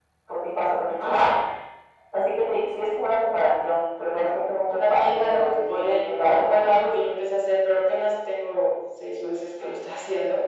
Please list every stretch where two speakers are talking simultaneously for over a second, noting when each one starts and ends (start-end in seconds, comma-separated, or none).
4.9-6.9